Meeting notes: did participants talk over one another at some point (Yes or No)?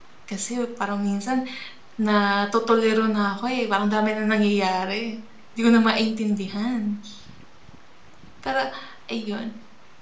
No